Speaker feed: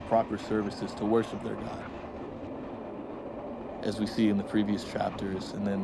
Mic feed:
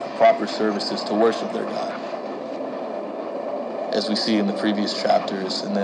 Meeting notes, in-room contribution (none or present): none